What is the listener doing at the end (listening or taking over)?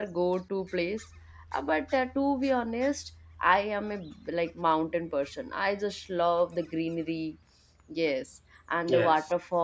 listening